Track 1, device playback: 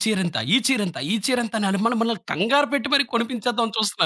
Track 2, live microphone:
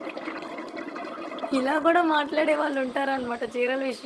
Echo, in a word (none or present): none